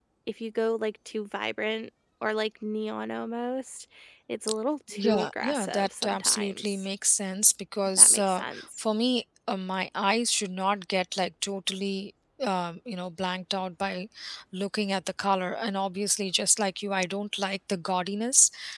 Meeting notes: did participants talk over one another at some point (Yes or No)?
Yes